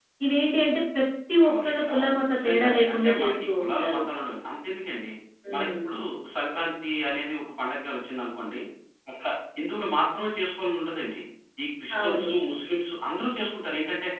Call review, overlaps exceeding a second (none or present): present